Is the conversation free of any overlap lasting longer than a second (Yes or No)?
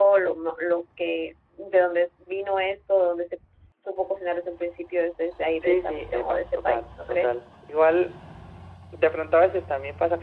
No